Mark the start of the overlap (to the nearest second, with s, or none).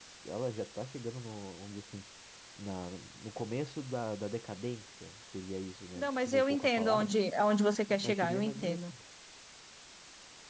6 s